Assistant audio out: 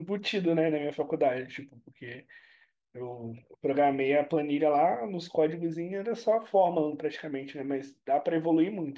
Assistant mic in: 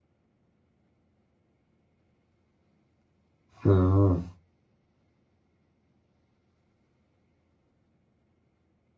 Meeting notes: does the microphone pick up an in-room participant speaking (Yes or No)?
Yes